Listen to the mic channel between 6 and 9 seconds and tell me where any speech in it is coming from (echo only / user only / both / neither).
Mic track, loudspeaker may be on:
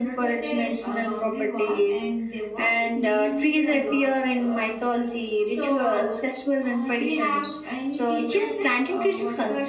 both